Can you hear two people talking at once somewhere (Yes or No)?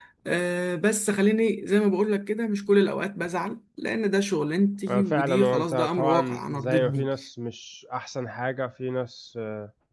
Yes